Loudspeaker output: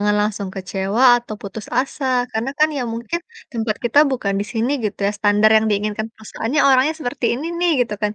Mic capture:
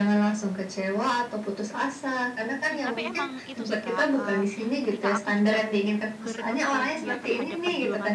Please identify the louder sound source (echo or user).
echo